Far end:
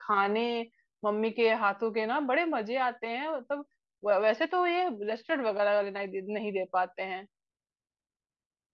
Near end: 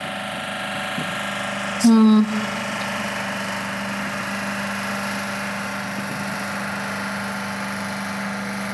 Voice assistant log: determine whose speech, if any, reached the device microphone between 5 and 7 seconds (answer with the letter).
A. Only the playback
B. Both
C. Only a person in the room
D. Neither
D